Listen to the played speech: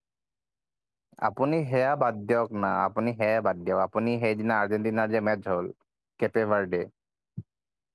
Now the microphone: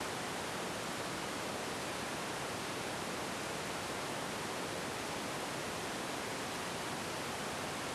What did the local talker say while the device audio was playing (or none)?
none